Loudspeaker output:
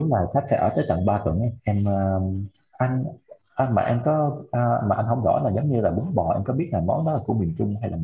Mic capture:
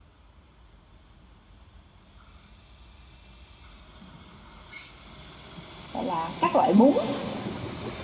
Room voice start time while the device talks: 5.9 s

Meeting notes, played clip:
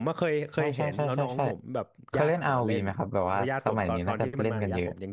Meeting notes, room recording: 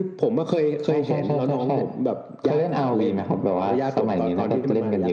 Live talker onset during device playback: none

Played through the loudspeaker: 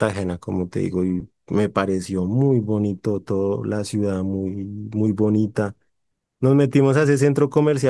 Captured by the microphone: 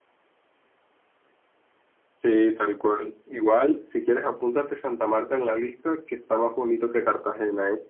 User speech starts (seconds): 2.2 s

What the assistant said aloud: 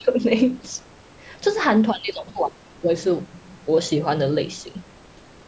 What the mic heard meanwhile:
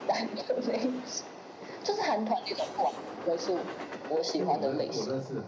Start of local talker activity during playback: 4.3 s

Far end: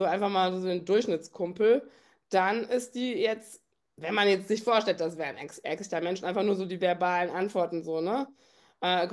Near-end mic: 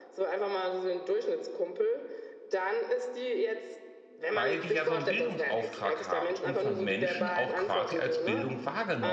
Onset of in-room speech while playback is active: 4.3 s

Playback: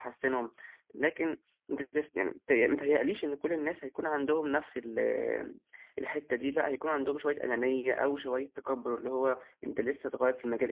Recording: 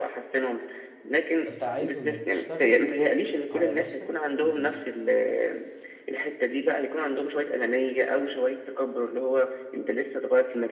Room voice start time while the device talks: 1.4 s

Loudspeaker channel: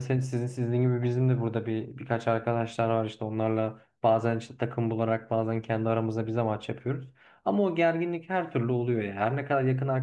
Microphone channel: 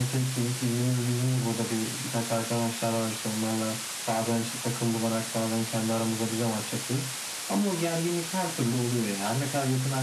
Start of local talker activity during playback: none

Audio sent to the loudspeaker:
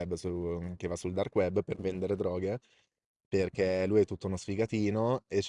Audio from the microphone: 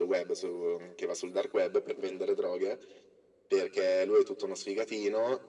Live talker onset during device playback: none

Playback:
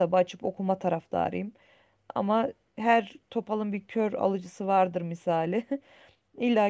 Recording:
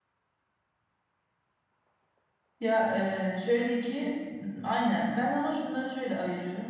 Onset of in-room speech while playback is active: 2.6 s

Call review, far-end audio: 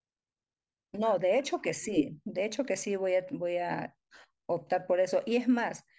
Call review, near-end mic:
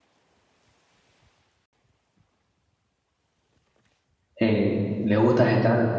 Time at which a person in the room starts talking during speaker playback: 4.4 s

